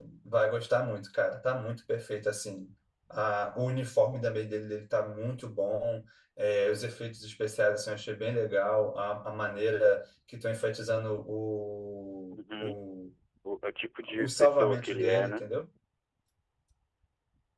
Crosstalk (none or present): present